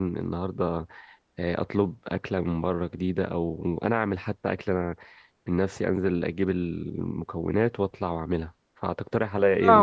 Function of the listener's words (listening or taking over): taking over